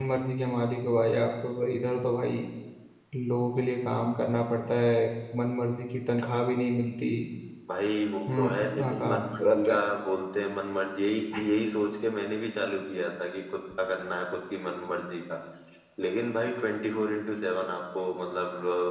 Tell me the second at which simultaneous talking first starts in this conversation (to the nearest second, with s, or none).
8 s